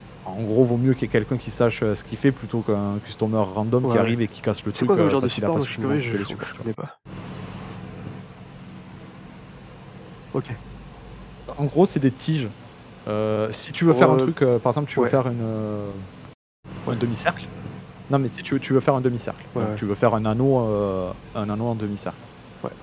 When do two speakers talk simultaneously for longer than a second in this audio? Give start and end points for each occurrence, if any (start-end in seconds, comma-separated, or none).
4.7-6.4